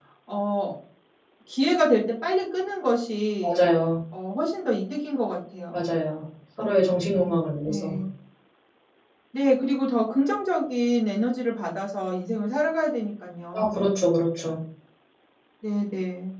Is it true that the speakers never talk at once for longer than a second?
Yes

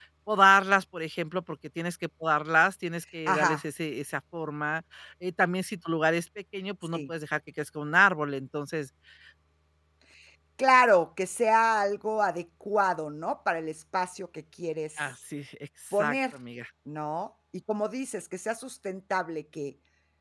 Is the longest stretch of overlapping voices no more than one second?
Yes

